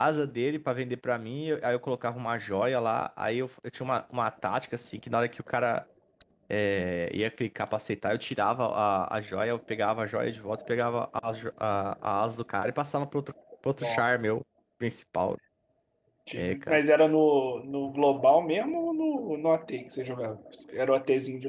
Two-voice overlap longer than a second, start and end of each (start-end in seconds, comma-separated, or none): none